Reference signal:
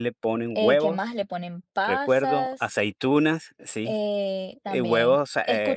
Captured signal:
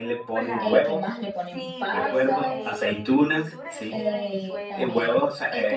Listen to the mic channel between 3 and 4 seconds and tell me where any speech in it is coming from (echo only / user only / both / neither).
both